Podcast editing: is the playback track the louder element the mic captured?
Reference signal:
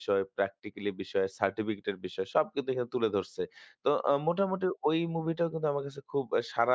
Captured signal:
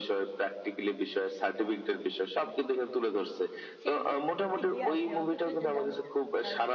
Yes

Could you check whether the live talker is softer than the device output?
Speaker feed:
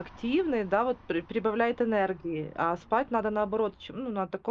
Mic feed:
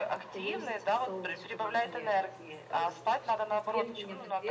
Yes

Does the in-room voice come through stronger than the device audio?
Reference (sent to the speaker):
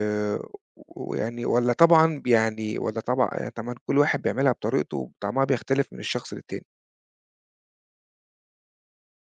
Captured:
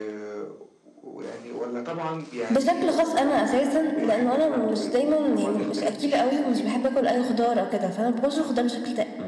Yes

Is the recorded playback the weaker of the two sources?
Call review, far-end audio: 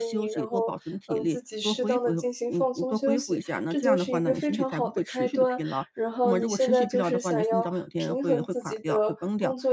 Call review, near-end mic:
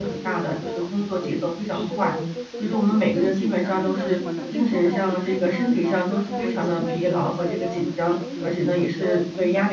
Yes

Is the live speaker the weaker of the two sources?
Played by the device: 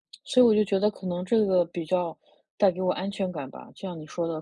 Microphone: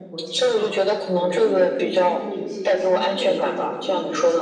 Yes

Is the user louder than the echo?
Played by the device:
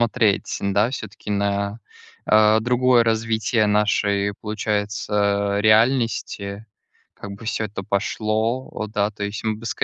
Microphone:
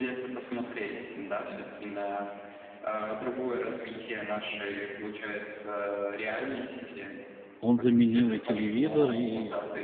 Yes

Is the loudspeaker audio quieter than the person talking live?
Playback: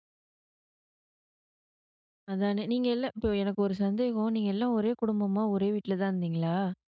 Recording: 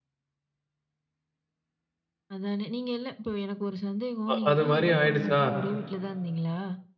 Yes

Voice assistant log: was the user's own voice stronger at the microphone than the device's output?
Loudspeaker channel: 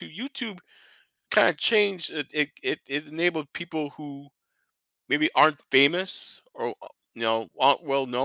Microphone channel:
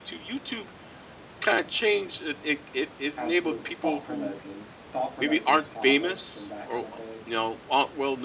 No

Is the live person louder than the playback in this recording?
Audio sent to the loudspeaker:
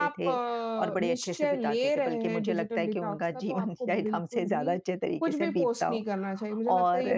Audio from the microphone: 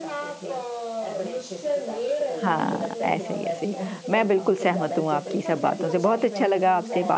Yes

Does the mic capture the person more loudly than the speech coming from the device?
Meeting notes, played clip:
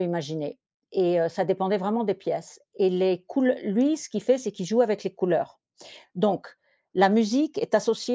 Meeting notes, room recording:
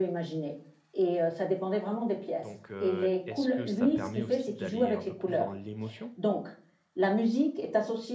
No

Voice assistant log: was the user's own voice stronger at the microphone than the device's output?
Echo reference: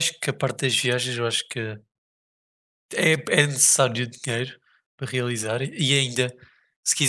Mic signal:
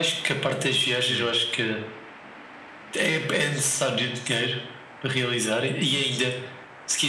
No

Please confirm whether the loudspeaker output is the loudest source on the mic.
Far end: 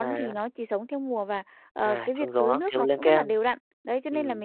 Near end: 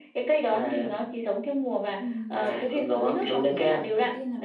Yes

